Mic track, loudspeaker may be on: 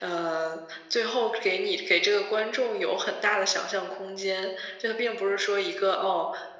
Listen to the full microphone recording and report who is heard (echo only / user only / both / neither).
echo only